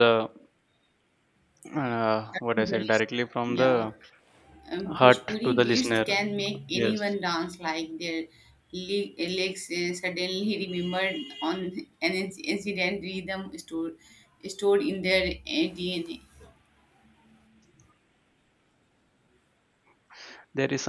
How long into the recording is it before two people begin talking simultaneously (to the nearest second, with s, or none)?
3 s